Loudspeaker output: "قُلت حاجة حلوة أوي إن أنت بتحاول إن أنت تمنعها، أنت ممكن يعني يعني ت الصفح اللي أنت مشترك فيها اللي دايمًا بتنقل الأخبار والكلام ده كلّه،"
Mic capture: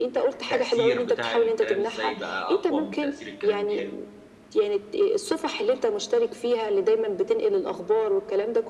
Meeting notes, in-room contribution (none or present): present